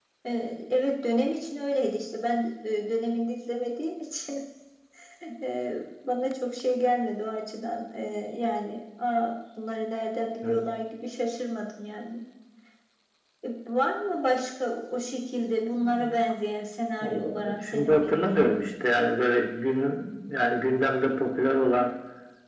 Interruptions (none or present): present